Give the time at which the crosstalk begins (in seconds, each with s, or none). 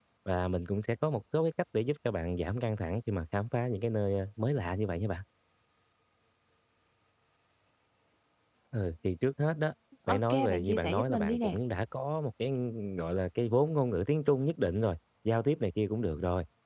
10.1 s